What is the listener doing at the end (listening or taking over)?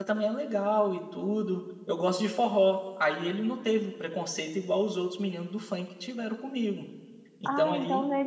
taking over